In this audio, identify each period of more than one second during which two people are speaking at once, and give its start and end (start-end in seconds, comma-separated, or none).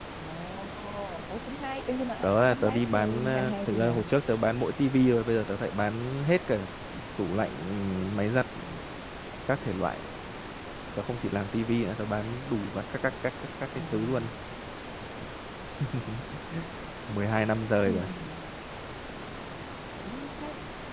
2.2-4.0